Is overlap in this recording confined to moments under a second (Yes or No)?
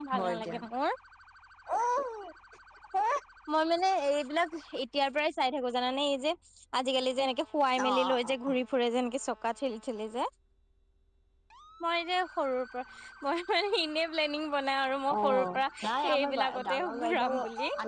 No